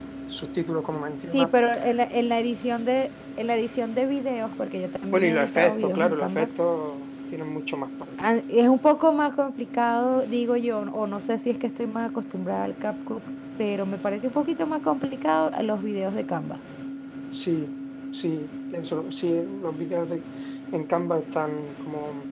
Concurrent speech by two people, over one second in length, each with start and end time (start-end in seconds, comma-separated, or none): 5.1-6.5